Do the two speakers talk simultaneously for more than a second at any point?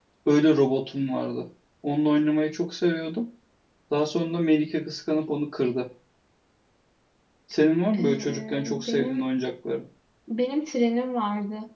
Yes, from 8.0 s

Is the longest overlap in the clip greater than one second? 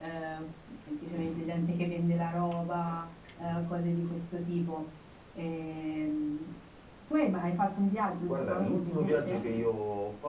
Yes, from 8.3 s

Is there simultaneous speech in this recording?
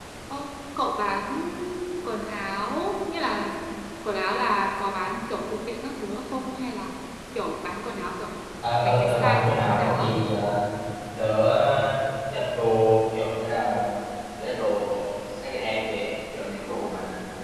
Yes, from 8.8 s

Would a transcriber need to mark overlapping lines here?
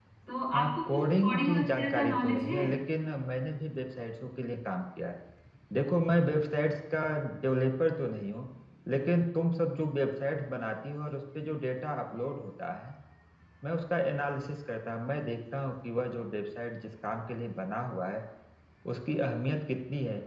Yes, from 0.5 s

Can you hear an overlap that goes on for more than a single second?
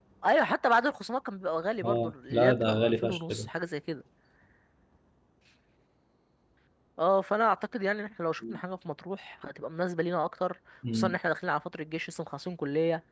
Yes, from 1.8 s

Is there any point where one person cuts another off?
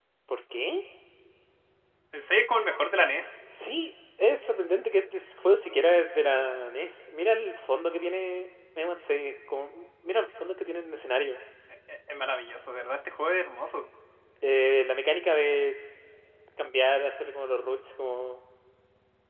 No

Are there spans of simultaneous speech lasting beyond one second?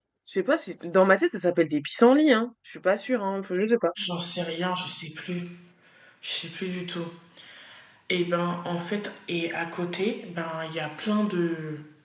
No

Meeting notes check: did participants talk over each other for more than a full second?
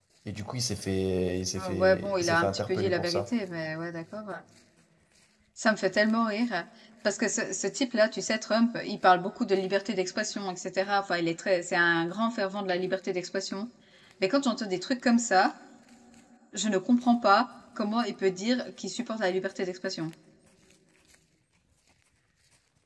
Yes, from 1.6 s

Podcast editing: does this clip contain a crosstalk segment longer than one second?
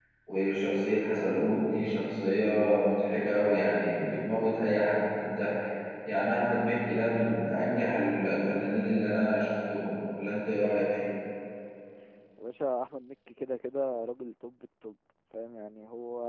No

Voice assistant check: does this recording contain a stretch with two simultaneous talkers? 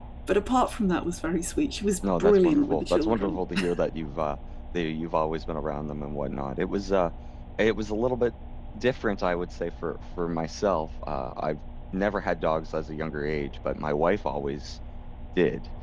Yes, from 2.0 s

